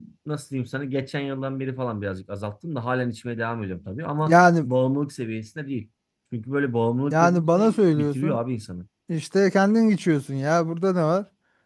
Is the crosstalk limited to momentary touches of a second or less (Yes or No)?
No